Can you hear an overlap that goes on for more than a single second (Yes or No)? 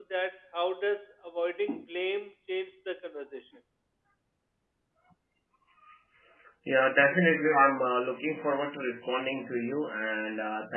No